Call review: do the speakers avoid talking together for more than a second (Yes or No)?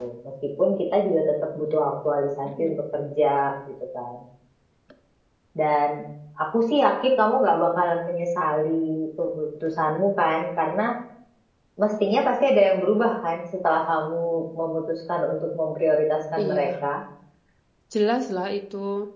Yes